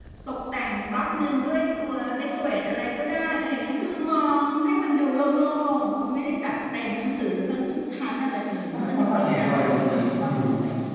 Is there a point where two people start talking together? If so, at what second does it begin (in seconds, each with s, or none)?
8.7 s